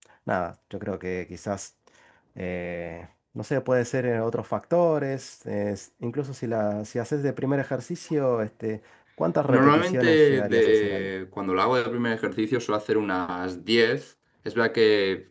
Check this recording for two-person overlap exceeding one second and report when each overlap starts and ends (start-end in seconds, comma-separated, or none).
9.5-11.1